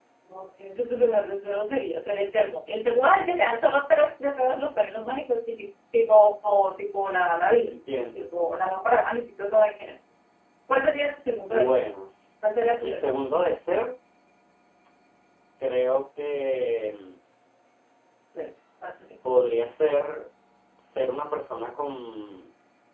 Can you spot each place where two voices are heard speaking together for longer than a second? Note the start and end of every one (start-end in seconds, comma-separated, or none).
none